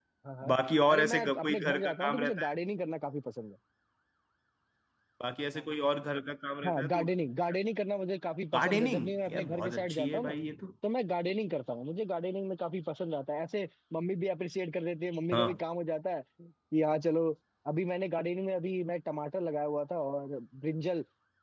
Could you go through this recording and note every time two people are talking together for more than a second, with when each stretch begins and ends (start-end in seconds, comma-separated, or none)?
0.9-2.5, 8.5-10.3